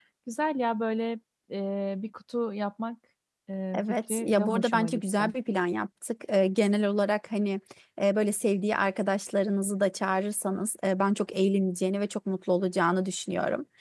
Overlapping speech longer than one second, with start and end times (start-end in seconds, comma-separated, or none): 3.7-5.3